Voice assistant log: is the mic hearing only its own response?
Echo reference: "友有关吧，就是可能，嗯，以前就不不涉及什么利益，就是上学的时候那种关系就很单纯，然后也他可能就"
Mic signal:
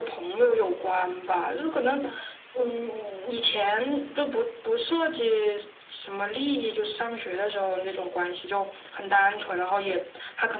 Yes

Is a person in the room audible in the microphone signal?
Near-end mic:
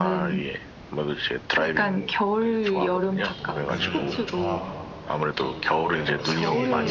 Yes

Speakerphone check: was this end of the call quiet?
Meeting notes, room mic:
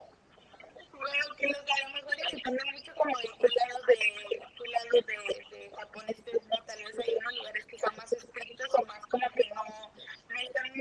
Yes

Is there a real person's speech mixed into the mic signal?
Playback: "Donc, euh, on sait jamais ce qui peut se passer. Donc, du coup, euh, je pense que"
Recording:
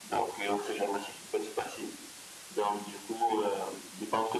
No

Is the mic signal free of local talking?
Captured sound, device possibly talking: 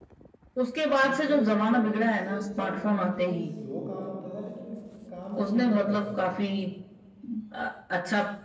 No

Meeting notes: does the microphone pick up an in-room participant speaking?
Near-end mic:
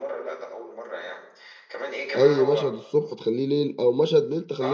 Yes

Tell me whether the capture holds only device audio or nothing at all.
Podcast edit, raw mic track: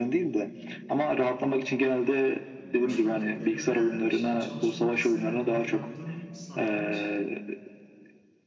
No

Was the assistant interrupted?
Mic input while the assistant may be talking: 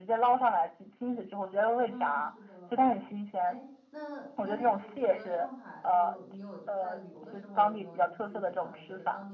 Yes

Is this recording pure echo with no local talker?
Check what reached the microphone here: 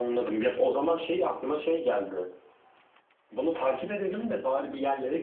Yes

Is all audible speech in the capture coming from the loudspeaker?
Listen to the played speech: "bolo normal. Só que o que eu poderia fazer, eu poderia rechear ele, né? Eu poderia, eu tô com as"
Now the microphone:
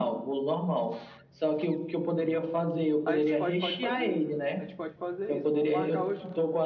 No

